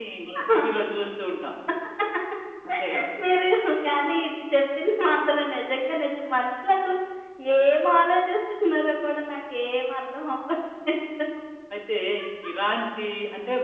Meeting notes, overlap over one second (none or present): none